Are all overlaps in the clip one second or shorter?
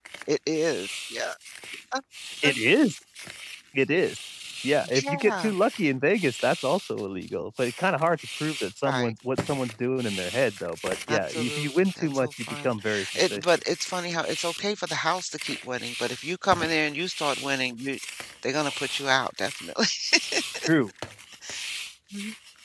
No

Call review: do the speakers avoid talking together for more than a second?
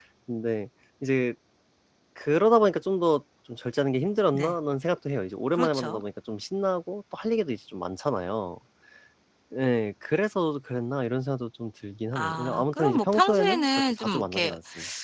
No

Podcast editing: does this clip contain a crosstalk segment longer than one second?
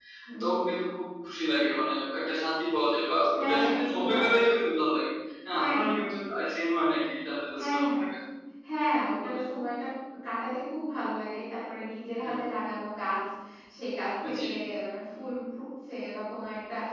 Yes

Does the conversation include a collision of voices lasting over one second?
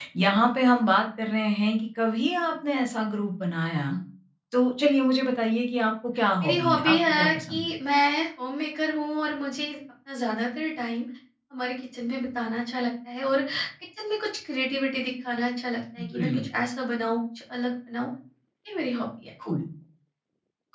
Yes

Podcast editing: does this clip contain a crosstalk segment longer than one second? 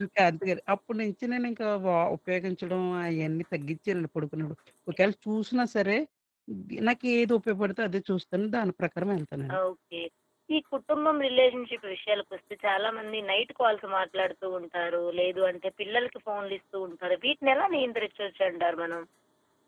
No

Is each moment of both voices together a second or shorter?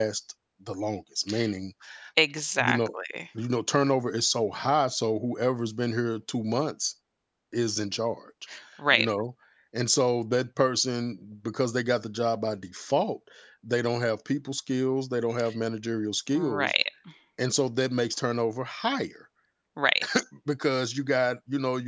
Yes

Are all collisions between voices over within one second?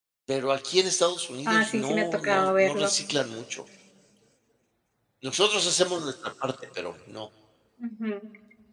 No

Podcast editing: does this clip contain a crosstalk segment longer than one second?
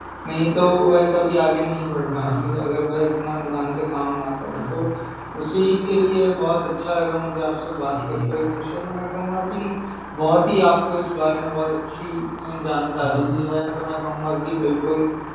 No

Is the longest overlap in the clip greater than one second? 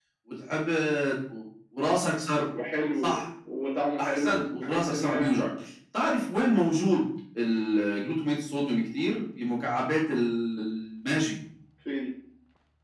Yes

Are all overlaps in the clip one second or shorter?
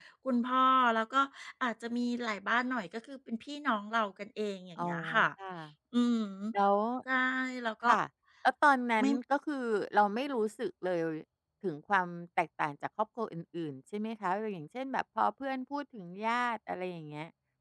Yes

